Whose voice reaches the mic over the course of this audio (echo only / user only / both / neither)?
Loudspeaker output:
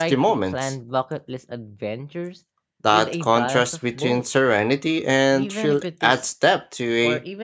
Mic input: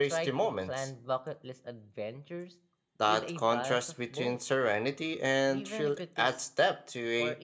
echo only